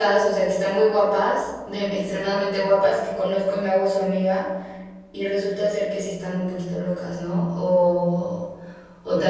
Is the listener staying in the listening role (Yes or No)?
No